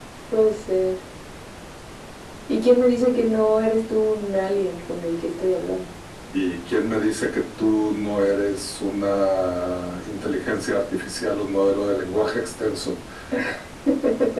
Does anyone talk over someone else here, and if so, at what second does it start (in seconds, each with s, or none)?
none